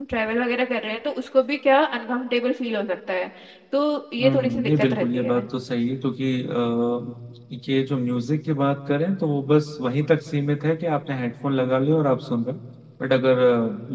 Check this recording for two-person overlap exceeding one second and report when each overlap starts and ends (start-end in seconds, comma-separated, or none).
4.2-5.5